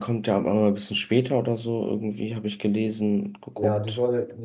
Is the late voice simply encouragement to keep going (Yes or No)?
No